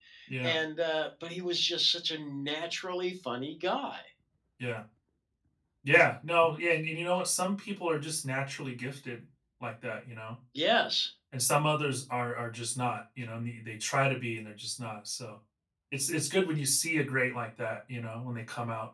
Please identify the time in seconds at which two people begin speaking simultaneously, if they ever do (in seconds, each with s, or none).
none